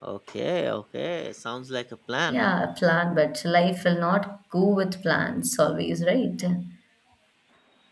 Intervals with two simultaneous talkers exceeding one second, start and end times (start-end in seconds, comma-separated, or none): none